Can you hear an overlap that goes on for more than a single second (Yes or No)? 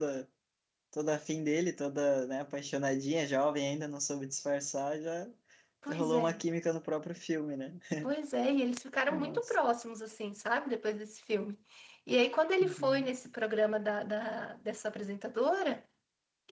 No